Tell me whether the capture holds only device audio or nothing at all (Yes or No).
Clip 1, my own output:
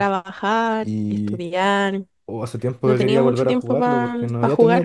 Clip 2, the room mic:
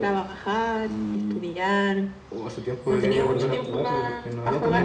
No